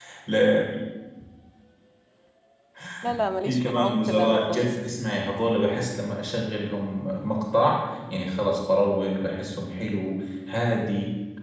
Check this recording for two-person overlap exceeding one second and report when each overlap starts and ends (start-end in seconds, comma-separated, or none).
3.5-4.8